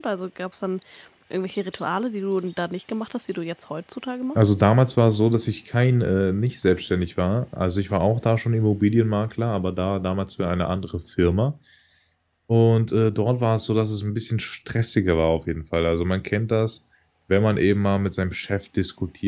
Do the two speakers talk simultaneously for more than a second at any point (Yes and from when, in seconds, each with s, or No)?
No